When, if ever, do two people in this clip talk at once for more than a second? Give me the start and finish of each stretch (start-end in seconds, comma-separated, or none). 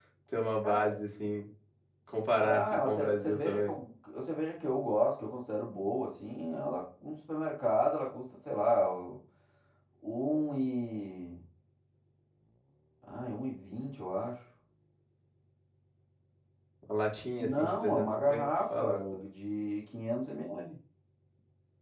2.4-3.7, 17.4-19.2